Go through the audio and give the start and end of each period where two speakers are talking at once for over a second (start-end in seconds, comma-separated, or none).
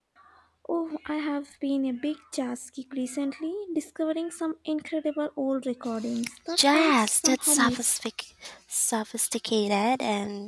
6.6-7.9